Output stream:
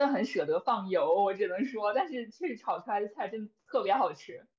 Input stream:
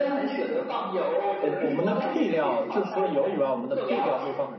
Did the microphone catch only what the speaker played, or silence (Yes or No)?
No